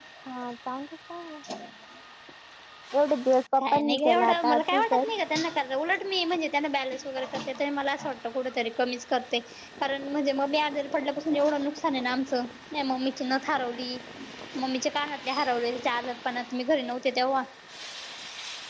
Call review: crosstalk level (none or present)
present